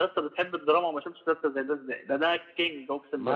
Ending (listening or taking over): taking over